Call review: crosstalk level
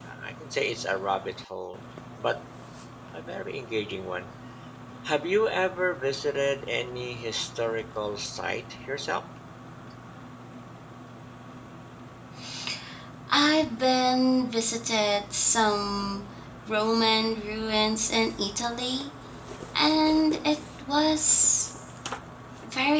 none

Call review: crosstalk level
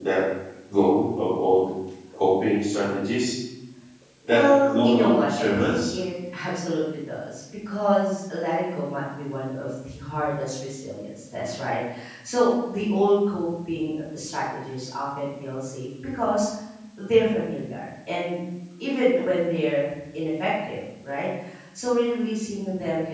present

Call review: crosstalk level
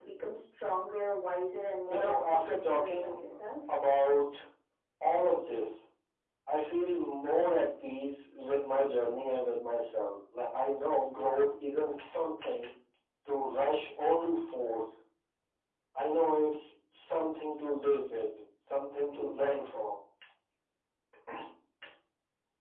present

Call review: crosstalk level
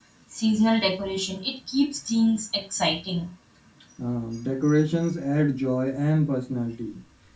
none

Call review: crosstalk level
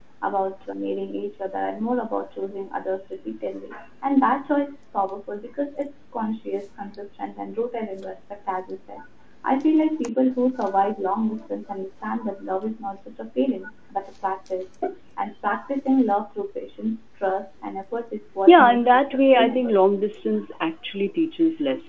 present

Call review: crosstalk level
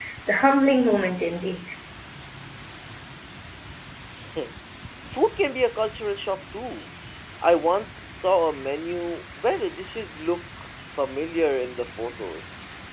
none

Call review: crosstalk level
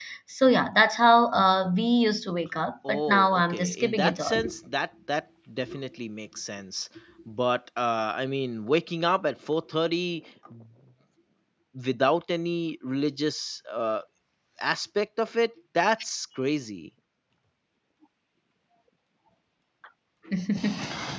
present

